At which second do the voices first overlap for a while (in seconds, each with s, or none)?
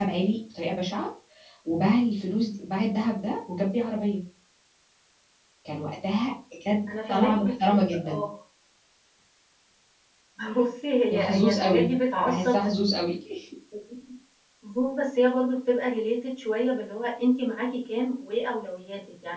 6.9 s